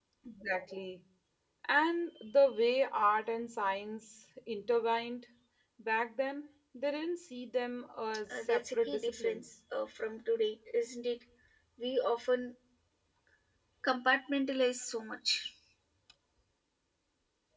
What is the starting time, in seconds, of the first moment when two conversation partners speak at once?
8.3 s

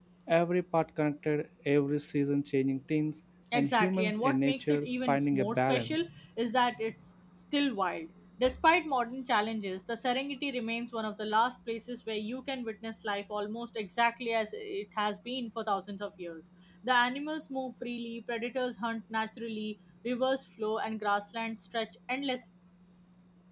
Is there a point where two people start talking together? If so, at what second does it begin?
3.5 s

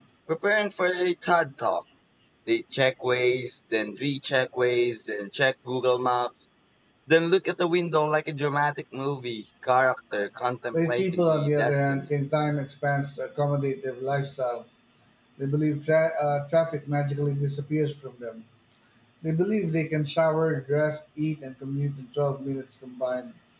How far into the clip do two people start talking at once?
10.7 s

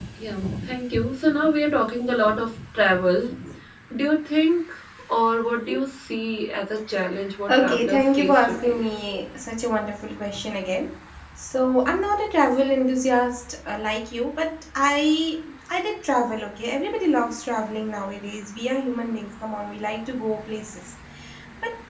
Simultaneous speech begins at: 7.5 s

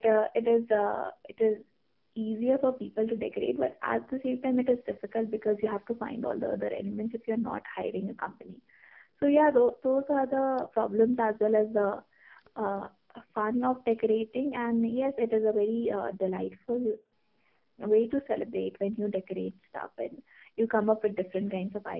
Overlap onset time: none

